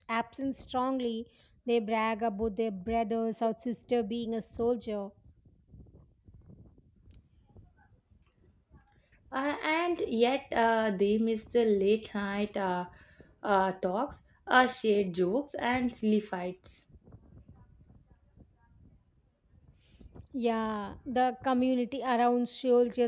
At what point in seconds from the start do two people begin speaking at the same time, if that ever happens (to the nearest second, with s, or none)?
none